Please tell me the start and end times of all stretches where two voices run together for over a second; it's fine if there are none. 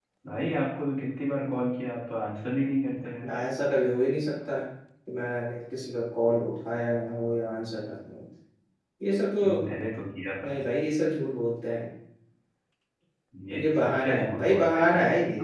13.5-14.8

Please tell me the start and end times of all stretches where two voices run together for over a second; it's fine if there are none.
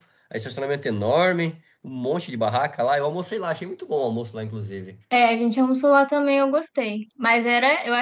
none

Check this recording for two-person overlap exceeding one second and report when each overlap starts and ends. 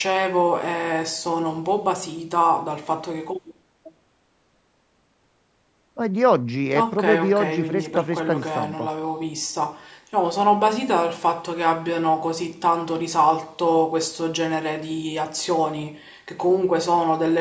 6.8-8.9

